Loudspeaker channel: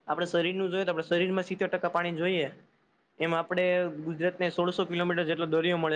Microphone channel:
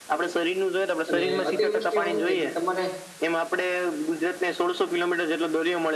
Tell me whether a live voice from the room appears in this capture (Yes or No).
Yes